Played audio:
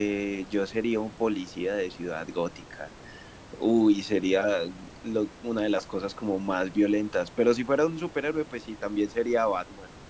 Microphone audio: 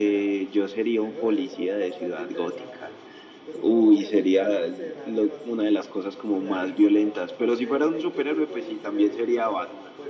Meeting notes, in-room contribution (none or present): present